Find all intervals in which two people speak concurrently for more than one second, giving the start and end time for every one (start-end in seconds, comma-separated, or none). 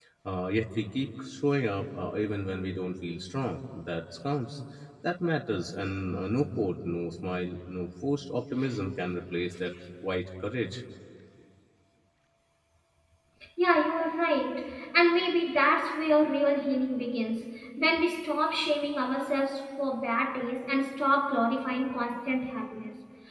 none